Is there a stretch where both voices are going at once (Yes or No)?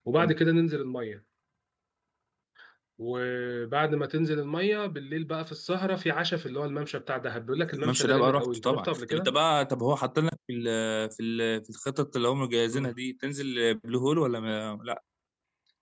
Yes